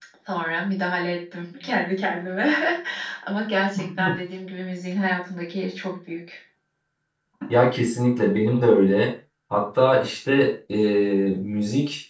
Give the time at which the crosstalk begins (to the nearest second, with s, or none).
none